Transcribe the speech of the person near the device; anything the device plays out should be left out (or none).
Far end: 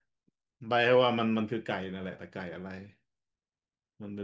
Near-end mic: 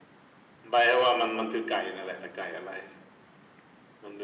none